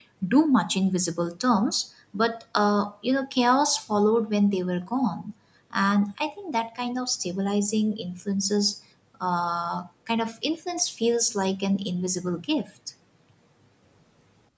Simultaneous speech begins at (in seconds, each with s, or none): none